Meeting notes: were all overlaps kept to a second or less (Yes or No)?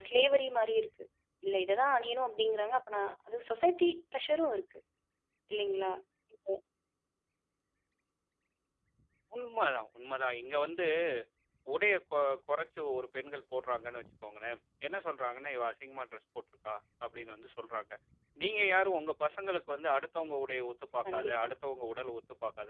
Yes